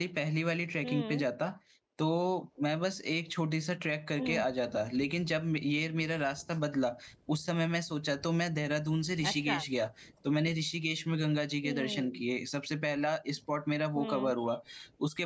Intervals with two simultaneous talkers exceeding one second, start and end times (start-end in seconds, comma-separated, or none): none